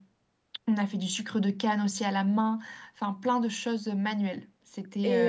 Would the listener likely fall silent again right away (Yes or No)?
No